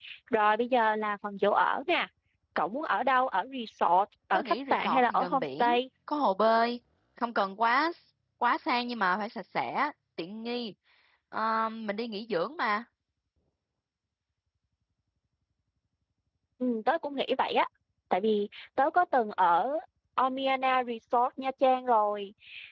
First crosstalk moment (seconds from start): 4 s

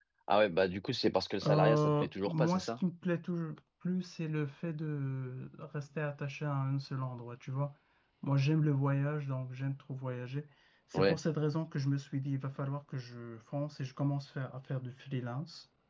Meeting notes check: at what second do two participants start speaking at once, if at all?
1 s

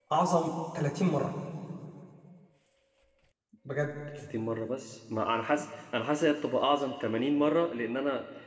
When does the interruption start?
none

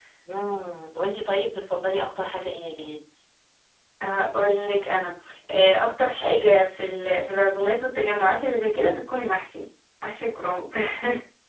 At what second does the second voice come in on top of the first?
none

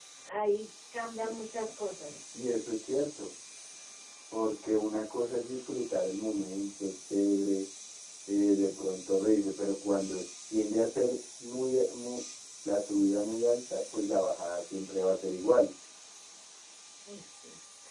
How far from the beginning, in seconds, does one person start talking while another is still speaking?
none

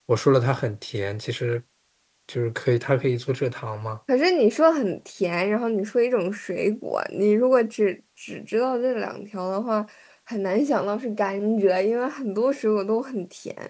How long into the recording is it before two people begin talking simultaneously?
none

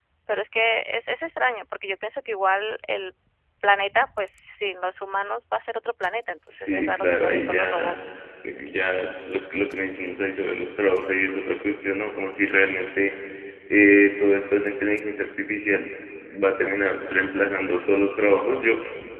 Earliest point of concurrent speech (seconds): 6 s

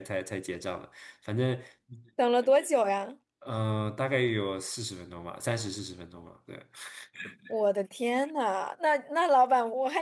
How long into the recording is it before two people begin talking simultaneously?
none

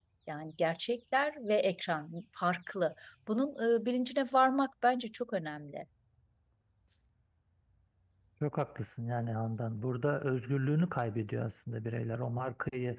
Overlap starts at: none

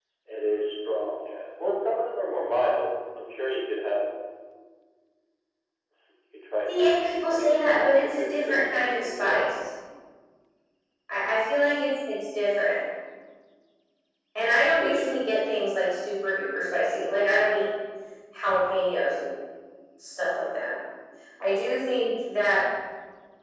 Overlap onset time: 7 s

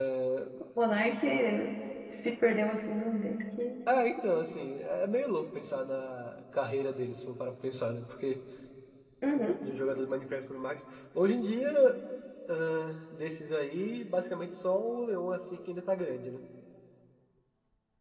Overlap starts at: none

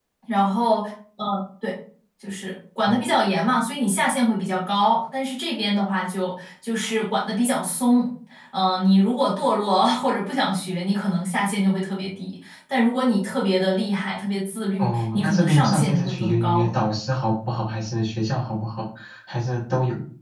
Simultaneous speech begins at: 15 s

